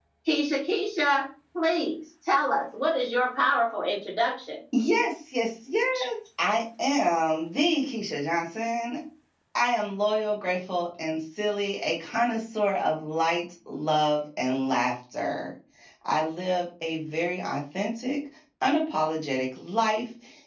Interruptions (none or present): none